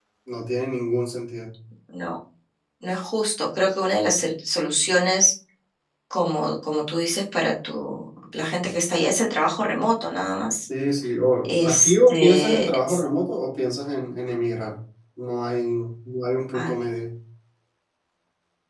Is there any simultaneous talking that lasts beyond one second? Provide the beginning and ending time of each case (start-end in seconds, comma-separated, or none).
11.4-13.0